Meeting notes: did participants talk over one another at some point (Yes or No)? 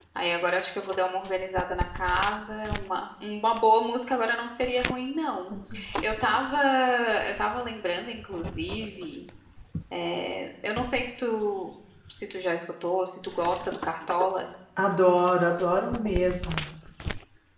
No